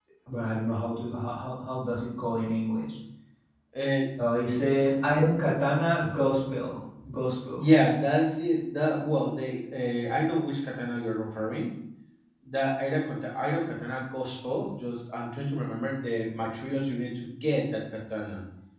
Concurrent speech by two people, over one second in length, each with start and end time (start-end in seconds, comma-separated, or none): none